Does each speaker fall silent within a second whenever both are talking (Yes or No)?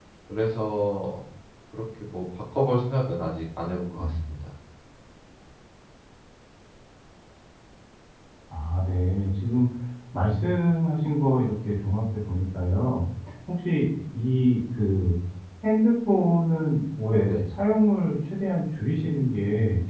Yes